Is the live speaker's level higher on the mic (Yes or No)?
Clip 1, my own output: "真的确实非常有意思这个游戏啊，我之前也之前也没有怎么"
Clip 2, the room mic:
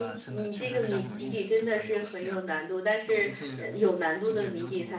Yes